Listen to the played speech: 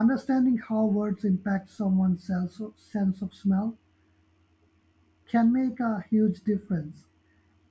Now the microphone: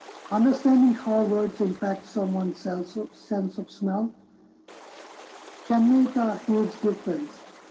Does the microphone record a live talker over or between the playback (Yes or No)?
No